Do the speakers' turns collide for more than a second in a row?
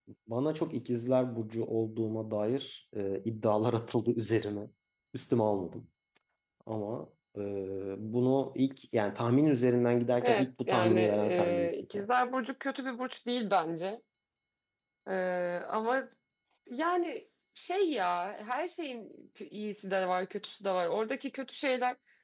Yes, from 10.2 s

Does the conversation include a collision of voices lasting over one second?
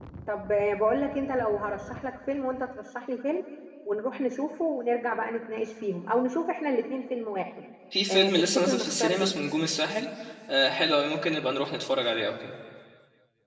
Yes, from 8.1 s

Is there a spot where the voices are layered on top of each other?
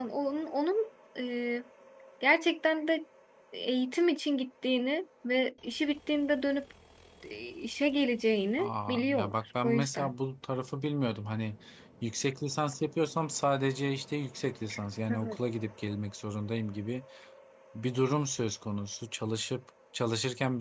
Yes, from 8.6 s

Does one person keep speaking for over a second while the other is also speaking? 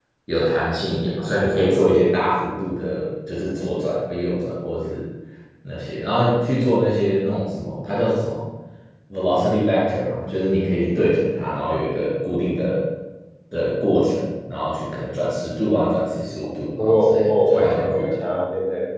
Yes, from 16.8 s

